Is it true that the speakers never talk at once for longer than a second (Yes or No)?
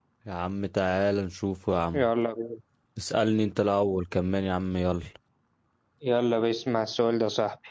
Yes